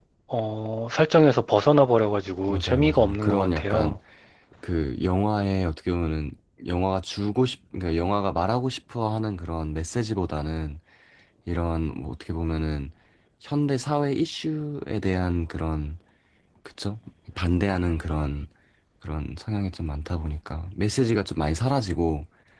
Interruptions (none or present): present